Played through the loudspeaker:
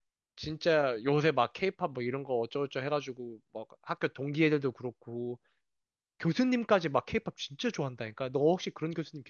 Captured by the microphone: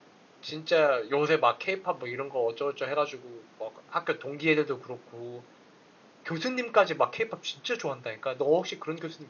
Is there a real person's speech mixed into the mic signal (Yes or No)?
No